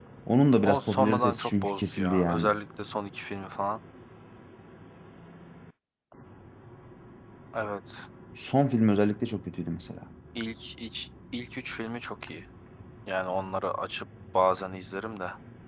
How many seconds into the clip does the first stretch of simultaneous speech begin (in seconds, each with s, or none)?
0.6 s